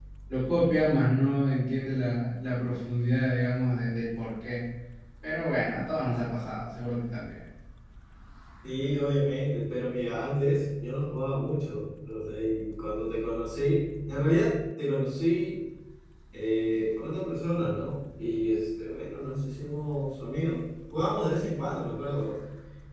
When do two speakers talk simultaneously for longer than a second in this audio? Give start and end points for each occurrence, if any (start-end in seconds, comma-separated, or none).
none